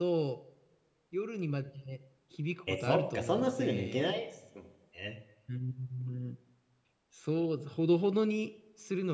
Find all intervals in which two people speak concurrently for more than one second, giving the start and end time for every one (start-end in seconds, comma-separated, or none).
2.7-4.1